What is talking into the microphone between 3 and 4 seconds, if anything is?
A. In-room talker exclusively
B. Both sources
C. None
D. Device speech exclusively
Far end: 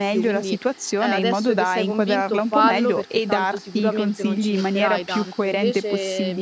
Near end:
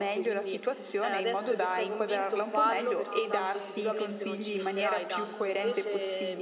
B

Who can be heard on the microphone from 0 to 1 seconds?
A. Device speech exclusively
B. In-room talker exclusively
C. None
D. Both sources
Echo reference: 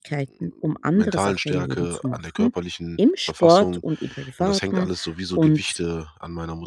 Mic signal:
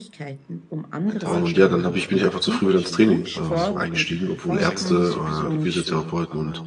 A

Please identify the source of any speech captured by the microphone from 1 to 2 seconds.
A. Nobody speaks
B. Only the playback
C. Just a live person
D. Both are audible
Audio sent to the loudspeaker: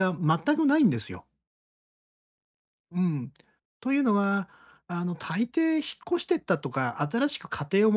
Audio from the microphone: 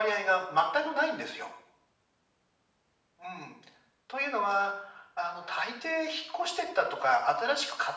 B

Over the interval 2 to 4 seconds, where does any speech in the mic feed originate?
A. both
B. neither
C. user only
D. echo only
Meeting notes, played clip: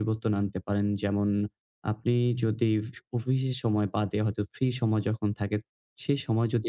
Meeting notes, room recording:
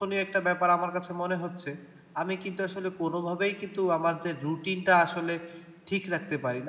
C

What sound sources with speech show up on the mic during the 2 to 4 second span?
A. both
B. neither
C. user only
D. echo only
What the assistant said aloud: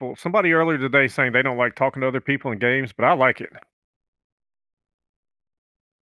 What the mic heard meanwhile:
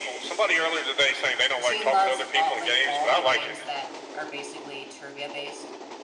A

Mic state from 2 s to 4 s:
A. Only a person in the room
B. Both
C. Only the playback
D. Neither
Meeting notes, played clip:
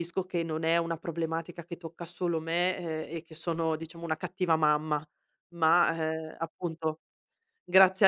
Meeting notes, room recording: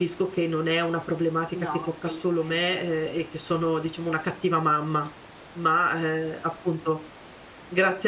B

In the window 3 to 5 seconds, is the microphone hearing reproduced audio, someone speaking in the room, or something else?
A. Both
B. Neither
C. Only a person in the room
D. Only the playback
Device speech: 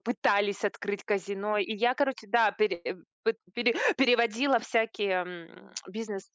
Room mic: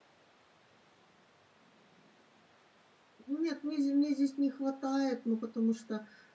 C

